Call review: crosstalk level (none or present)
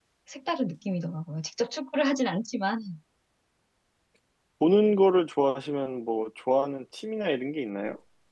none